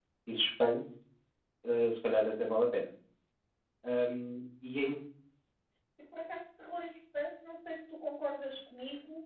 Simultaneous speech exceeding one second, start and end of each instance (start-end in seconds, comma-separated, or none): none